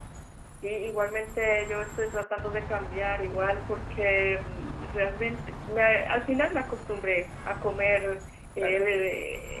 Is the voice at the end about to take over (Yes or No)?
No